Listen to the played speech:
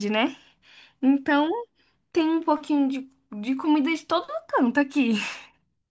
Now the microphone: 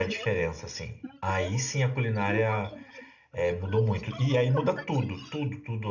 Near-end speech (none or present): present